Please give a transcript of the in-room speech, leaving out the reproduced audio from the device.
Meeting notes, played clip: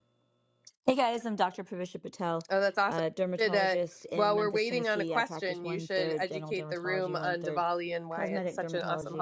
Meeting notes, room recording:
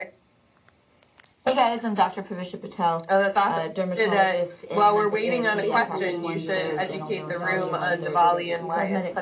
and it's basically um, an evaluation of good over evil.

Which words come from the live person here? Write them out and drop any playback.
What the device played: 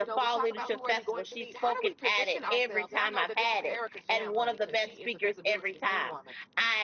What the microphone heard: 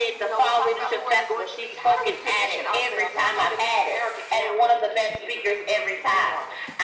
none

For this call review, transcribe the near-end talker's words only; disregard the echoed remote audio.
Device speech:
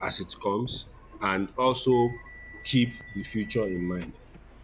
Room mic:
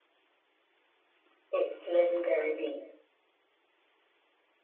It's legendary beats.

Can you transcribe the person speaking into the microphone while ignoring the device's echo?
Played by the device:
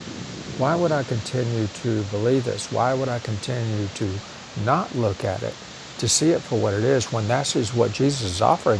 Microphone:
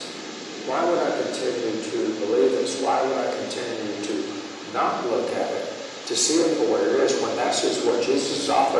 none

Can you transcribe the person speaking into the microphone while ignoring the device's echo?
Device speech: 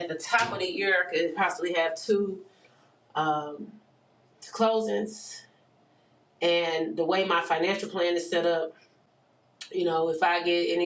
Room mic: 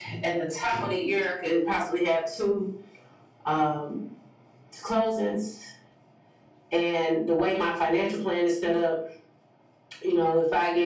none

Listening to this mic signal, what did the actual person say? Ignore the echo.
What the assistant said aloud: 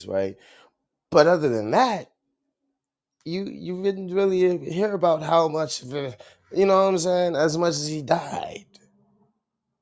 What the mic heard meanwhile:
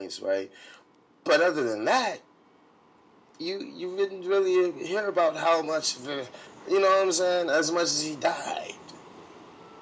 none

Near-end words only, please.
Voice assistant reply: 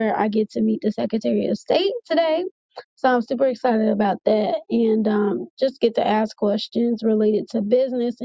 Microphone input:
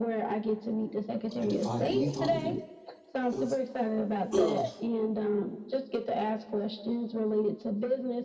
I defy any thought of. In- of ugh,

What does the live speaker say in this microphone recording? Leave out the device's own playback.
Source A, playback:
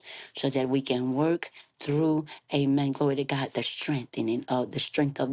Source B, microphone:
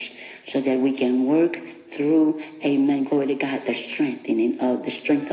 none

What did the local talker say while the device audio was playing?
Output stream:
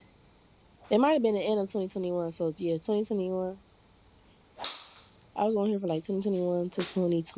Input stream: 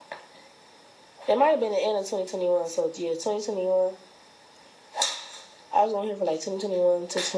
none

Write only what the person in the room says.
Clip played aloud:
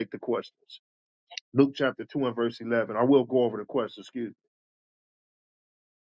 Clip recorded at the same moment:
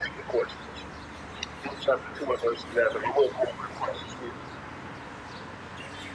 none

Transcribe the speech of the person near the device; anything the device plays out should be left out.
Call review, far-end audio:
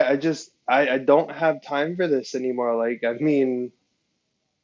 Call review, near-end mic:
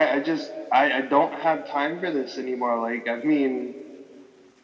none

